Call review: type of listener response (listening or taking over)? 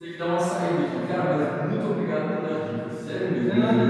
taking over